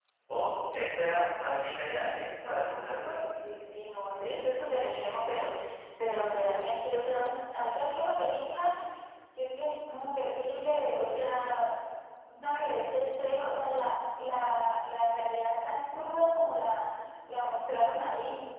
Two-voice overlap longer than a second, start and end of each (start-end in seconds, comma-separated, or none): none